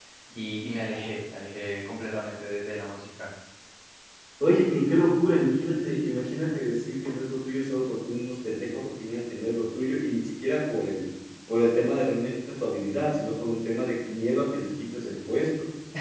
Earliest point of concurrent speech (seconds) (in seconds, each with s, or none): none